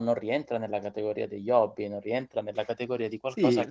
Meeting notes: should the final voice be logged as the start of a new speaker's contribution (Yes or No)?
Yes